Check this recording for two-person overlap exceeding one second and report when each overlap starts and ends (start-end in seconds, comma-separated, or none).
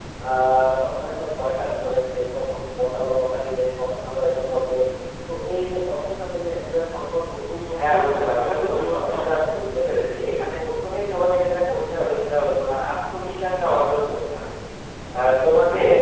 7.8-9.4